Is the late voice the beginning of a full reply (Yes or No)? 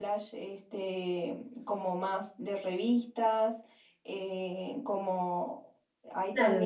Yes